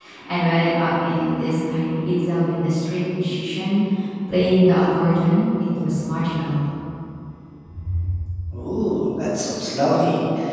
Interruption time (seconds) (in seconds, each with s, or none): none